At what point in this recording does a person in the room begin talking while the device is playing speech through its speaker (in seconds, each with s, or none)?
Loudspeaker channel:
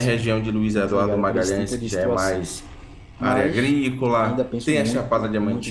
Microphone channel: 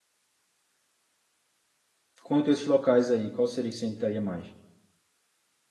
2.2 s